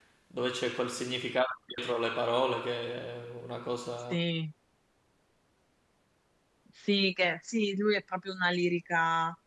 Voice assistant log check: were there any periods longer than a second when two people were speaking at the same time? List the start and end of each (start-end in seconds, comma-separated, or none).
none